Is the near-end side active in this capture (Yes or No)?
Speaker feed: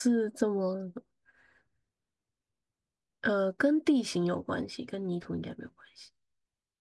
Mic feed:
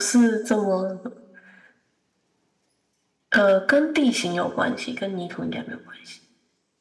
No